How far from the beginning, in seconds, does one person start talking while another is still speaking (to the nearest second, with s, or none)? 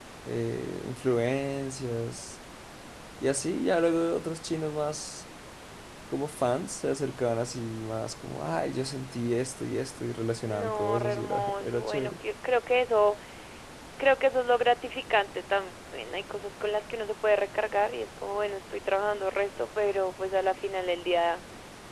10 s